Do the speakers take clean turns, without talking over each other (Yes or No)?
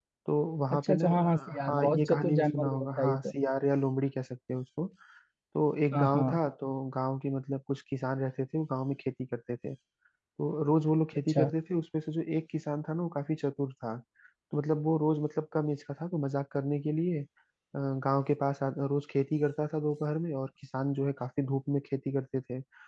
No